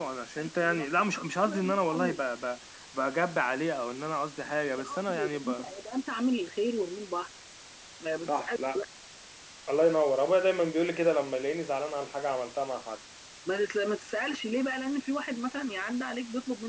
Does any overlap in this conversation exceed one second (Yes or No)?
Yes